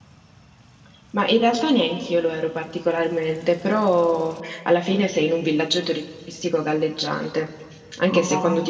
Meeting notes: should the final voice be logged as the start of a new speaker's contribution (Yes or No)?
No